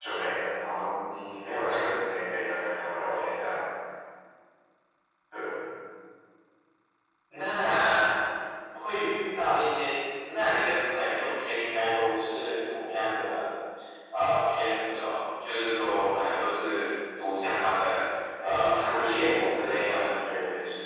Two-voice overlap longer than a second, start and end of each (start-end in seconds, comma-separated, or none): 18.4-20.1